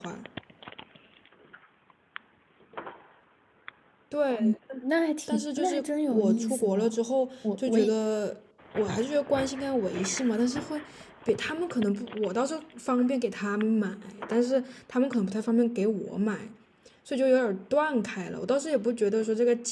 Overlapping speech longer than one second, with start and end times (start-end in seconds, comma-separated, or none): 5.3-7.0